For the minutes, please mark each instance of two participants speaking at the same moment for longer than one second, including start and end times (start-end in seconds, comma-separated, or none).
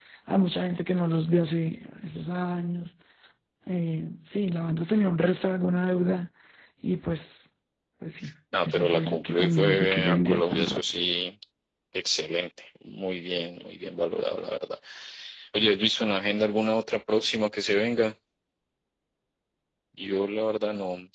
8.5-10.8